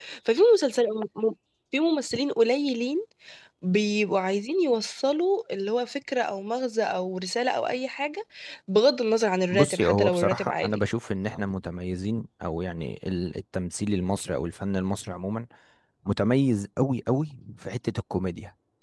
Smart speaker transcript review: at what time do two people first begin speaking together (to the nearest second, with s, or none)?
10 s